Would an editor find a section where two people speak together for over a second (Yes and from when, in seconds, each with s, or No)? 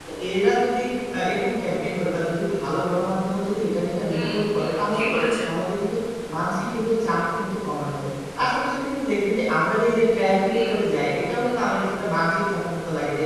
Yes, from 4.1 s